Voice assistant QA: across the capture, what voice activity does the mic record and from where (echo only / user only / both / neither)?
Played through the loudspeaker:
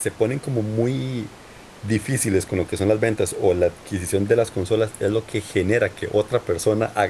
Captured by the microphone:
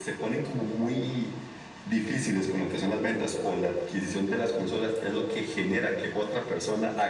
echo only